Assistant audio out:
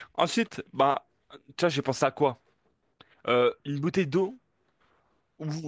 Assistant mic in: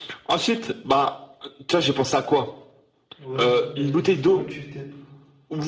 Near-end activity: present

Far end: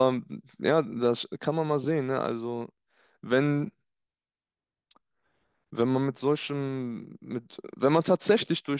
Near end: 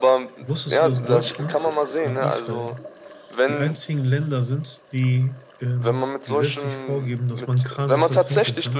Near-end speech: present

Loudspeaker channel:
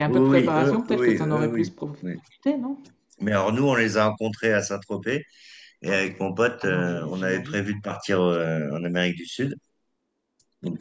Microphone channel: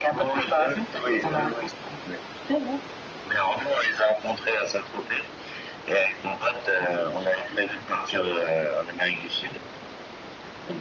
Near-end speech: none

